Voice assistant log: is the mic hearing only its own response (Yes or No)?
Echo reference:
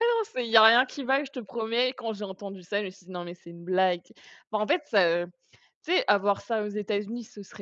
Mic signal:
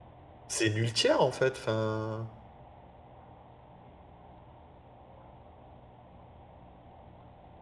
No